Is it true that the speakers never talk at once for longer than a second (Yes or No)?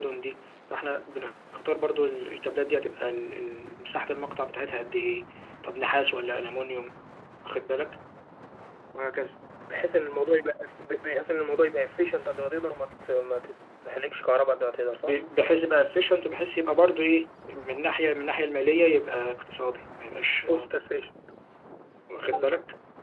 Yes